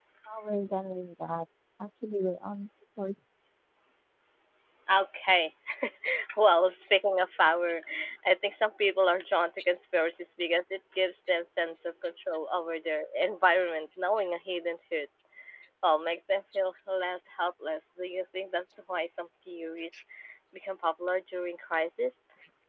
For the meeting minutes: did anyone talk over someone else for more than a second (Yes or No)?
No